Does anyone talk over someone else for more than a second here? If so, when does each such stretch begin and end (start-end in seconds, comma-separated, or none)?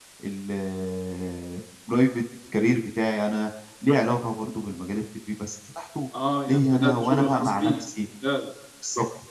6.5-7.8